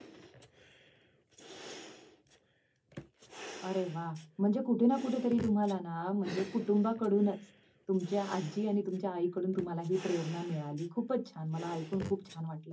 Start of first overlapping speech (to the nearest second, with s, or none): none